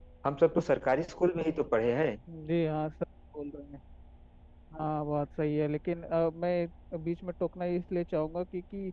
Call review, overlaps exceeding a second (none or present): none